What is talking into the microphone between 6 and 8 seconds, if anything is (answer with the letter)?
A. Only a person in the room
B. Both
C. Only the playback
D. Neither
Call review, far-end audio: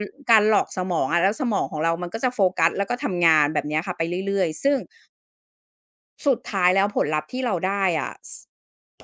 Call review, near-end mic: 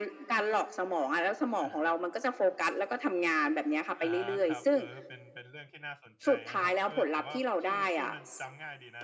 B